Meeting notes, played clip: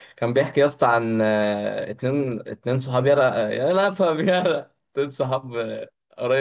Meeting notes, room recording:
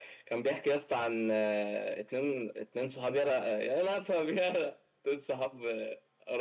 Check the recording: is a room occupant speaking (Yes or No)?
No